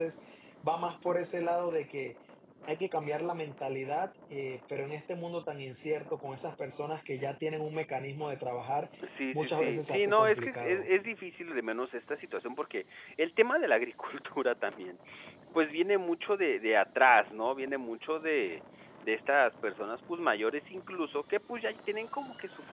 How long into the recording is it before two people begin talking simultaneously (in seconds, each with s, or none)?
9.3 s